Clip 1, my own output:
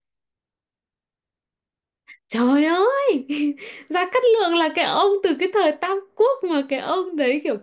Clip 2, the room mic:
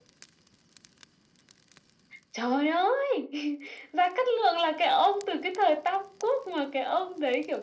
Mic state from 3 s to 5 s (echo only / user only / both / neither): echo only